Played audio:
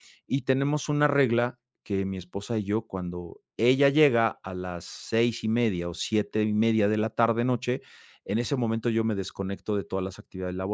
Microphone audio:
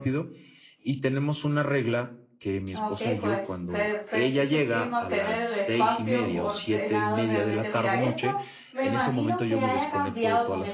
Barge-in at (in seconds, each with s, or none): 2.8 s